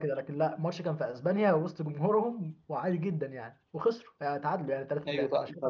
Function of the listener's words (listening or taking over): taking over